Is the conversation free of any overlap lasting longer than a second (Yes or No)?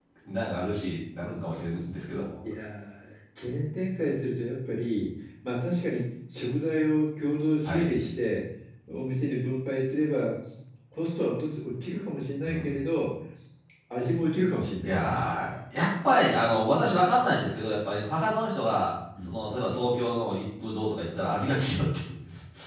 Yes